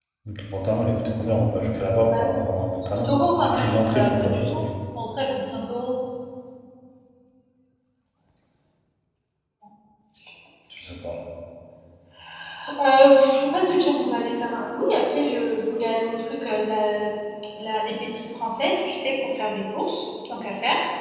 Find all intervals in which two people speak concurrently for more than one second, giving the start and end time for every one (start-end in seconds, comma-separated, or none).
3.0-4.4